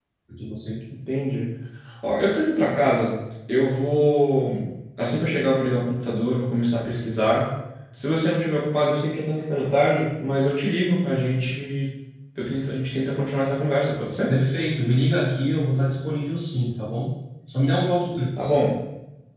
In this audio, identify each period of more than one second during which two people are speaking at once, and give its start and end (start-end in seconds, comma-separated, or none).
none